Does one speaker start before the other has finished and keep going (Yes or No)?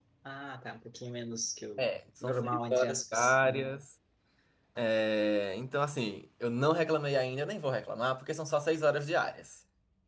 Yes